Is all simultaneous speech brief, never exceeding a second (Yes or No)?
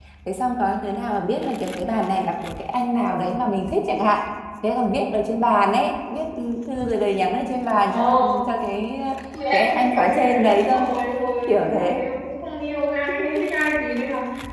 No